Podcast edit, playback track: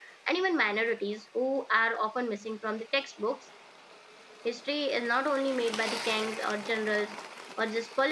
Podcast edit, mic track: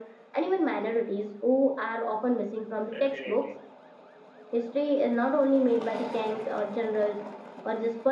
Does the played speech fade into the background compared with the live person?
No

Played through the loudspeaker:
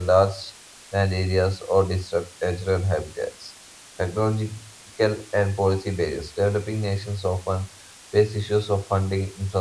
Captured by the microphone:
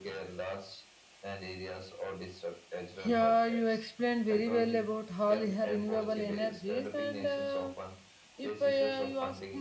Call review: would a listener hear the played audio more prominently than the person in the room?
No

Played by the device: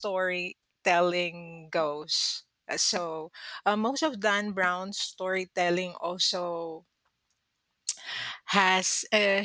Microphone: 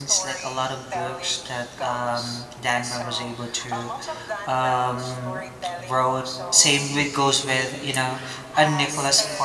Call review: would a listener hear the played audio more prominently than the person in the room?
No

